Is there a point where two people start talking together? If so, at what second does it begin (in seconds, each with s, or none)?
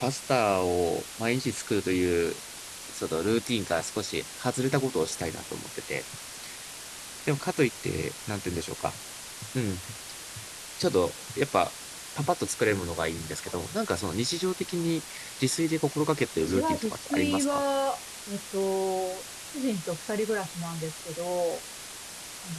16.4 s